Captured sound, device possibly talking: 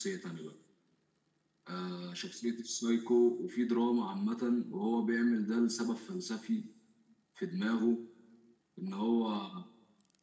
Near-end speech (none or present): none